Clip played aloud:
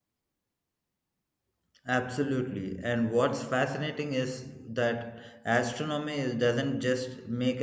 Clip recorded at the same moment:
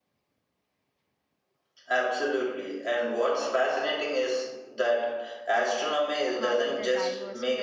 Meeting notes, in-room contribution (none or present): present